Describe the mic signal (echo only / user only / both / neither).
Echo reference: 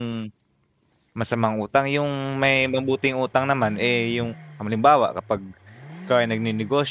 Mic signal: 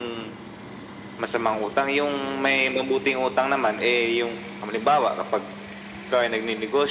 echo only